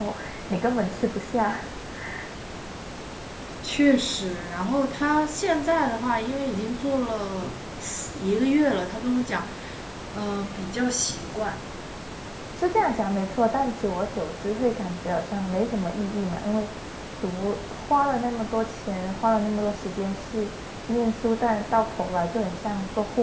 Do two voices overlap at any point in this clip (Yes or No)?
No